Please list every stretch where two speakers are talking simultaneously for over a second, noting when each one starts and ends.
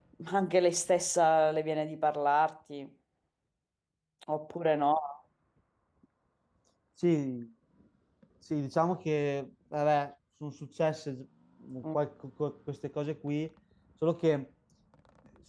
none

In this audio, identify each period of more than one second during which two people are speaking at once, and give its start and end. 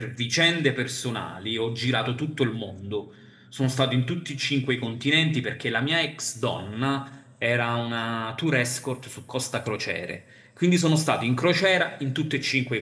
none

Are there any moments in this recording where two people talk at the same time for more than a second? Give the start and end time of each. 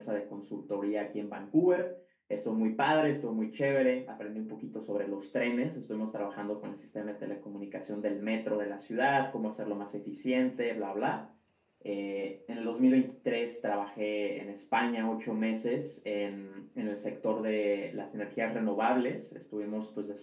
none

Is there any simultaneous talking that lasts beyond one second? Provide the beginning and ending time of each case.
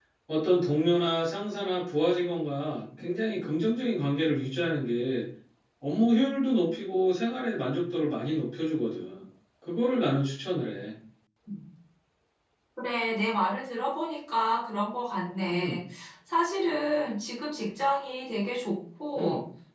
none

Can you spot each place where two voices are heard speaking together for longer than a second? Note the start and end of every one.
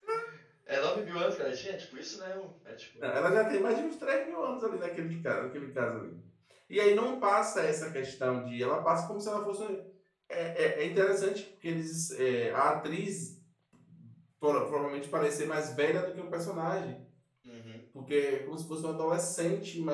none

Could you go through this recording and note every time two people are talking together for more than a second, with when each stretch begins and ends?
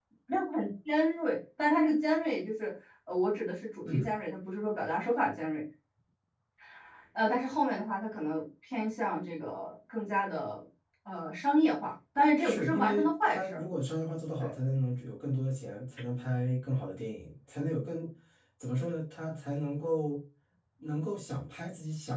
12.4-13.6

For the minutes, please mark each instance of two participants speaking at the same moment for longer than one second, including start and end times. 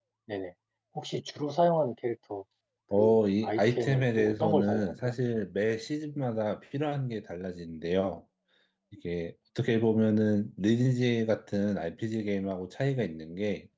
3.0-5.1

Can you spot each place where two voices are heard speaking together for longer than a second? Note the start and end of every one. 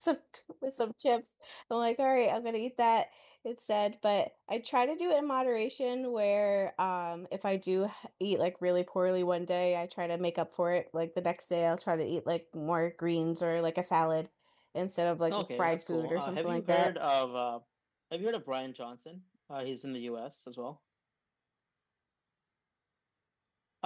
15.3-16.9

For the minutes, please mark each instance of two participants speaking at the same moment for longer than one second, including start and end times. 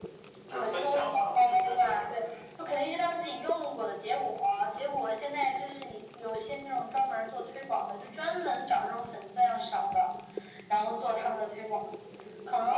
0.5-2.2

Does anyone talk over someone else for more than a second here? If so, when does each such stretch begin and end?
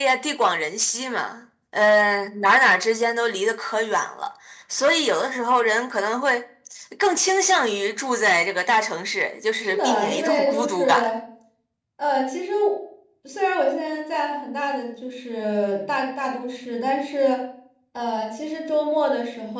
9.6-11.1

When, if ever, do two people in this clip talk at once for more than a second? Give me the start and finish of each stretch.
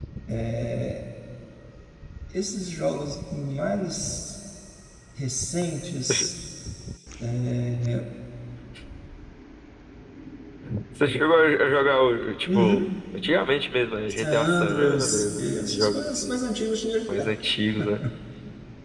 14.1-16.4

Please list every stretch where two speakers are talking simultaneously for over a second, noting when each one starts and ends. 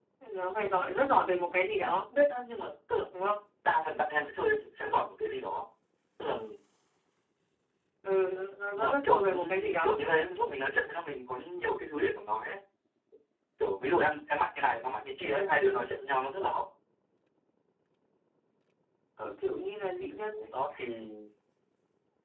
8.7-10.0

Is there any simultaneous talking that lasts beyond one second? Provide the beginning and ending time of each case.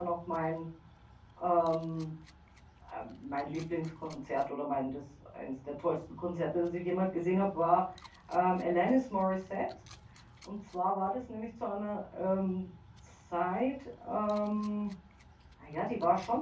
none

